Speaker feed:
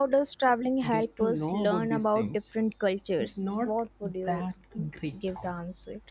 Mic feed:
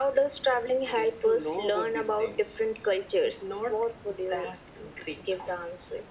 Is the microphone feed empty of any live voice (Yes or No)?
Yes